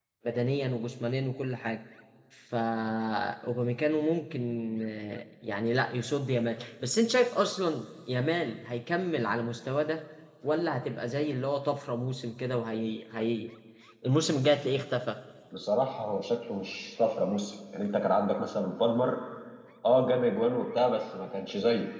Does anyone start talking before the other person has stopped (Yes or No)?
No